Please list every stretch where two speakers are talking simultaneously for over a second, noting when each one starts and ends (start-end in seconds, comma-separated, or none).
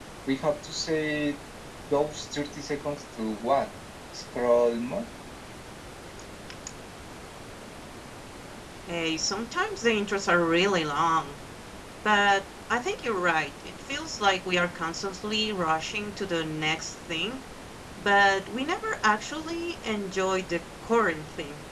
none